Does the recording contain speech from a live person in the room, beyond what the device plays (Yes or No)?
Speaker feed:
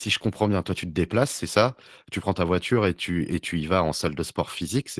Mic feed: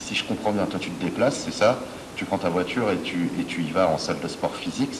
No